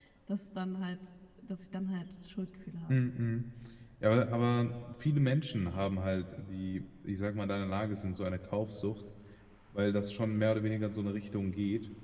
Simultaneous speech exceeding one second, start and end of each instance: none

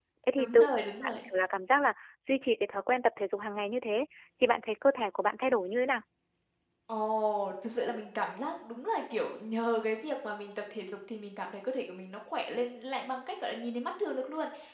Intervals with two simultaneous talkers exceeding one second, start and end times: none

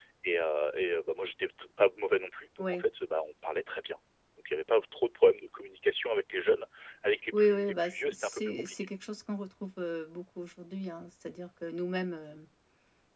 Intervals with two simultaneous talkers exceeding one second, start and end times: 7.3-8.8

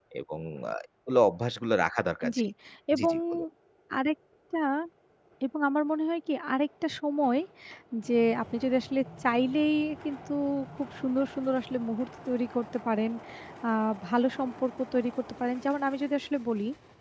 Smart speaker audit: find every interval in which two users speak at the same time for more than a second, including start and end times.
none

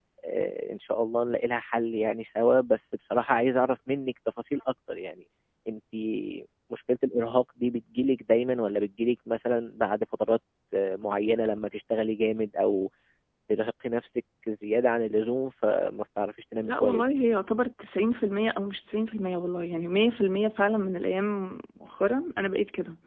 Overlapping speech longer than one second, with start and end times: none

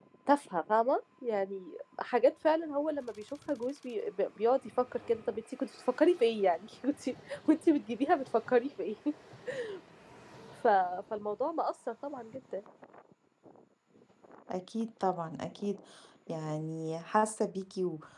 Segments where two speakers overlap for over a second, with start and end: none

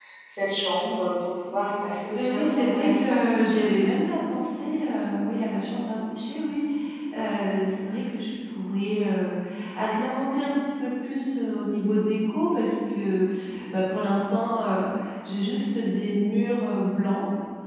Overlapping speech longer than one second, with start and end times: 2.1-3.3

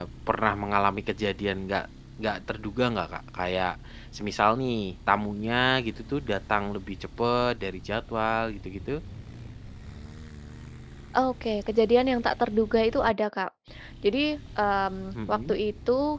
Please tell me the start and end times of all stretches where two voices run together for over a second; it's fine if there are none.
none

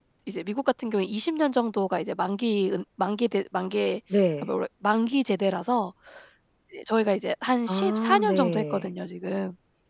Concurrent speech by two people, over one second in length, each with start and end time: 7.7-8.9

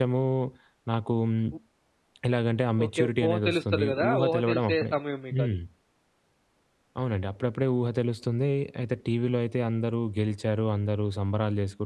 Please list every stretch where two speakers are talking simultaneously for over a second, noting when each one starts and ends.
2.9-4.9

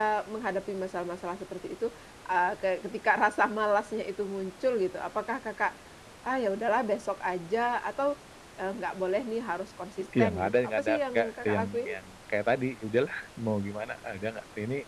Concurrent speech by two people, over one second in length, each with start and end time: 10.2-11.9

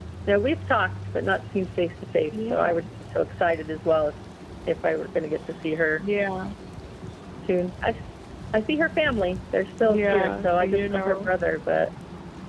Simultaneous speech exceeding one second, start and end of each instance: 9.8-11.3

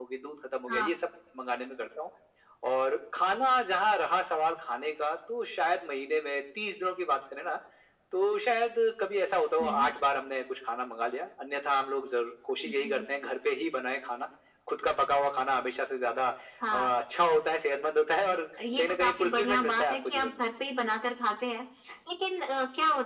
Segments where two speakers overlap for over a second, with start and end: 18.8-20.4

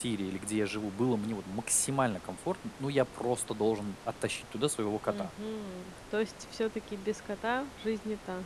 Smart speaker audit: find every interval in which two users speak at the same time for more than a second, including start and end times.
none

